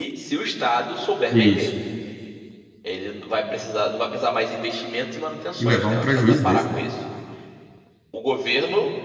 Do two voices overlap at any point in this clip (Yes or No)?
Yes